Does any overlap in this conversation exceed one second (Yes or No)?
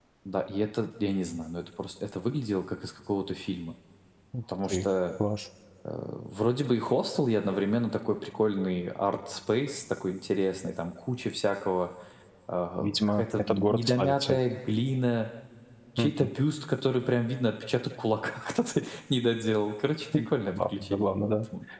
Yes